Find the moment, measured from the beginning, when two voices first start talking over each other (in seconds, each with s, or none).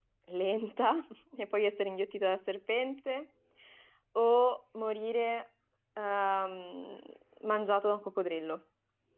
none